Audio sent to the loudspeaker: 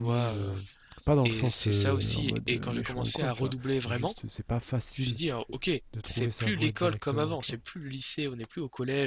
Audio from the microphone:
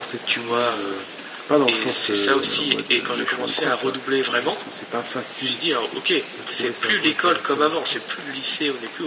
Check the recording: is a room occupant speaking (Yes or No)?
No